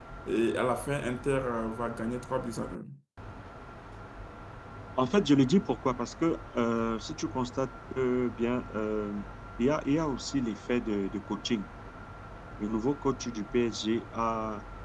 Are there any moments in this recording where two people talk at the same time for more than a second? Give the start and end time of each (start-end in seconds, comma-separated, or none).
none